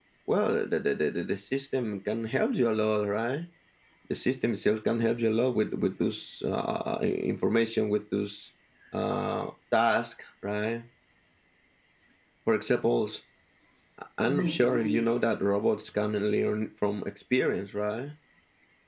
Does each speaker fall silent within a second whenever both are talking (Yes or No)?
No